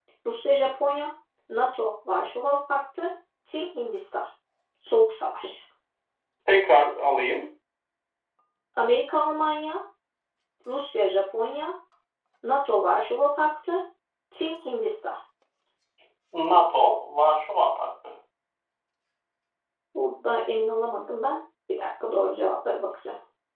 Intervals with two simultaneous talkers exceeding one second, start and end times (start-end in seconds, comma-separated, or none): none